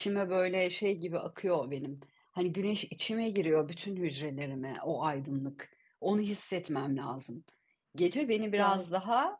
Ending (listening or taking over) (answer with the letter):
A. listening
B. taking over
A